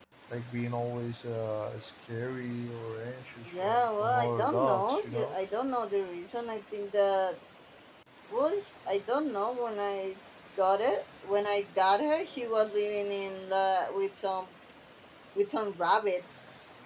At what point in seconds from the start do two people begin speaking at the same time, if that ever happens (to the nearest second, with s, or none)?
3 s